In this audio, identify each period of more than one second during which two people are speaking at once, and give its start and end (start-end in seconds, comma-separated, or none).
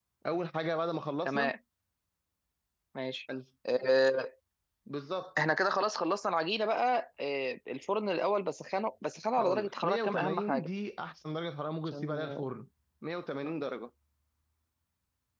9.4-10.7